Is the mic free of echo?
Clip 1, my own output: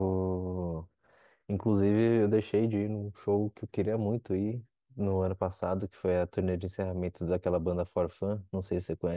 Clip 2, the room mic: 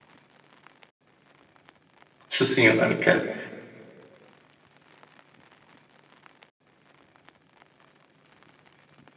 Yes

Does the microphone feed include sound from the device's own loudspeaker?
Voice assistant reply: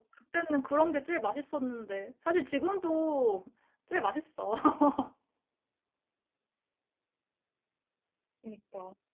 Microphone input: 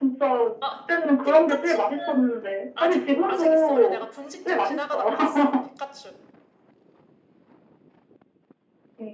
Yes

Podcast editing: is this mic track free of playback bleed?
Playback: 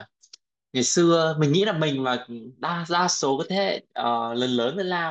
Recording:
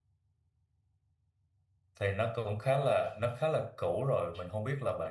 Yes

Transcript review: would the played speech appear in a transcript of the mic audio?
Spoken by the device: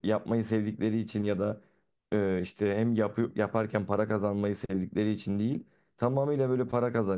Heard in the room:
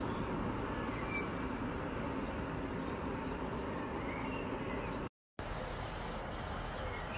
No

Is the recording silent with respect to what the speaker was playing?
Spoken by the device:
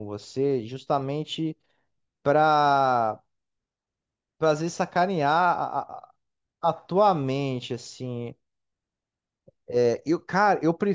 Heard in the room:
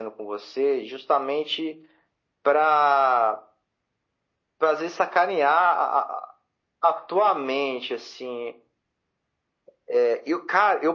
No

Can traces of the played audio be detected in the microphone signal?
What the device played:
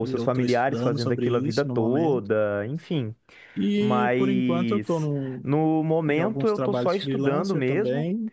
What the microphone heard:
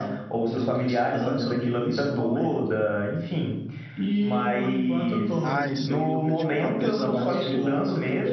Yes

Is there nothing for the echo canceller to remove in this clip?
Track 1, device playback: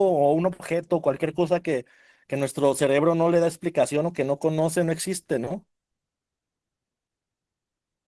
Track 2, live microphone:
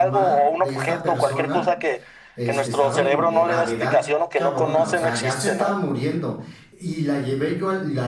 No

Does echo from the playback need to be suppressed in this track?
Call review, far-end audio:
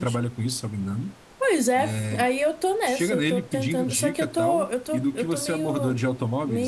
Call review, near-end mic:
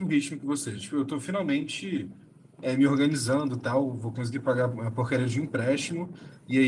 No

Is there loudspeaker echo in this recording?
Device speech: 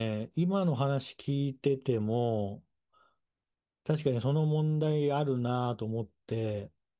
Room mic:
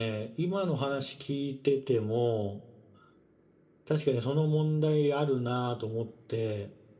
Yes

